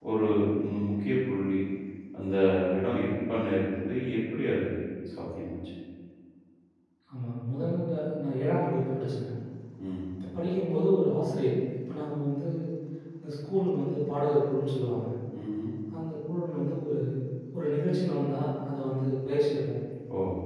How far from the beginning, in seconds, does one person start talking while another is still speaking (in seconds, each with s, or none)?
none